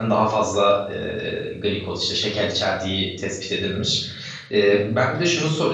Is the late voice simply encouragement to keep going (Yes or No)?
Yes